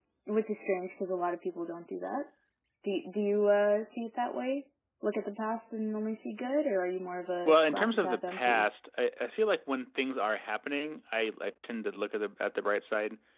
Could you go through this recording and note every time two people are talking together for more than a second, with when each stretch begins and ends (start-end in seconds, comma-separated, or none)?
7.5-8.7